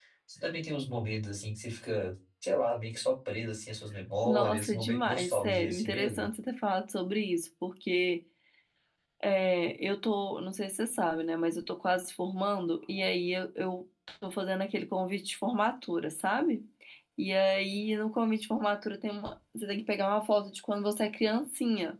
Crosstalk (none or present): present